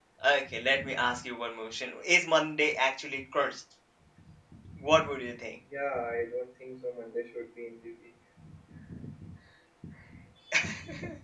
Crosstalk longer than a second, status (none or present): none